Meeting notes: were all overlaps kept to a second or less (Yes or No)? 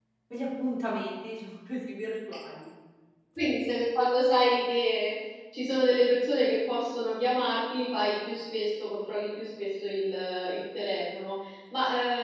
Yes